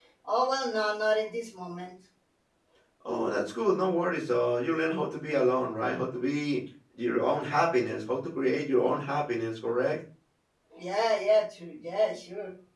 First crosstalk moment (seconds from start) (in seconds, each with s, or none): none